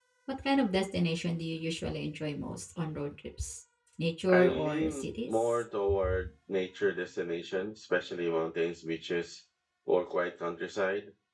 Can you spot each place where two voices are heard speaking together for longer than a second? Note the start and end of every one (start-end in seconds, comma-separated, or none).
4.3-5.6